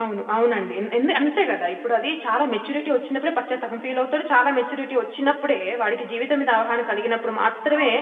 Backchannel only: No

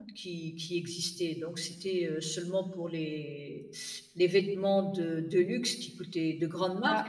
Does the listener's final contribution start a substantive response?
No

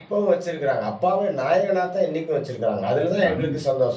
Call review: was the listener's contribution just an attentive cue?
Yes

